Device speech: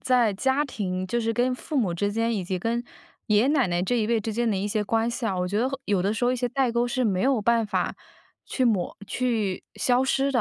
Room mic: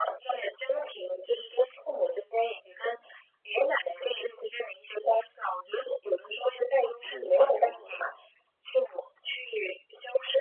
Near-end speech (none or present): present